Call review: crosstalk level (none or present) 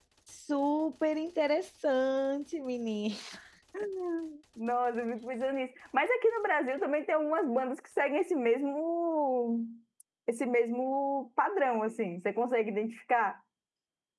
none